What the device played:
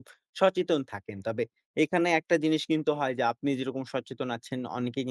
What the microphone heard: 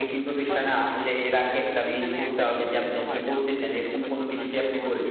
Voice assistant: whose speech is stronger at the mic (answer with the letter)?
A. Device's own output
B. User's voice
B